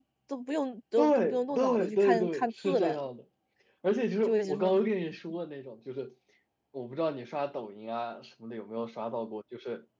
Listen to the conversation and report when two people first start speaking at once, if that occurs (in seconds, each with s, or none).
1.0 s